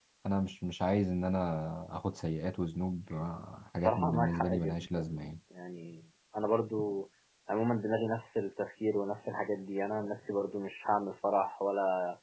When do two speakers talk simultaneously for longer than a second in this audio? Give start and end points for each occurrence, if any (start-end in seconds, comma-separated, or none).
3.8-5.2